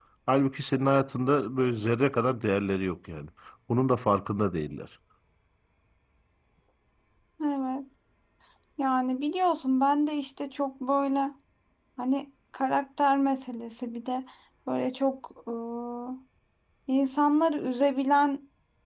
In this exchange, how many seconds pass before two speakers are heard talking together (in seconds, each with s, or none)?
none